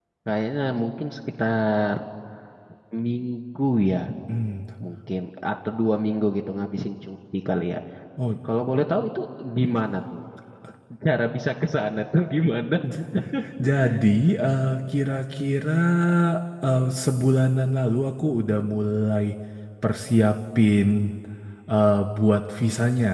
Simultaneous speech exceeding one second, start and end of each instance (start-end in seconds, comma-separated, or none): none